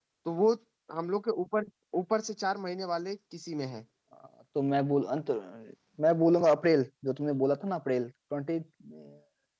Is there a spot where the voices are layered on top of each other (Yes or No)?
No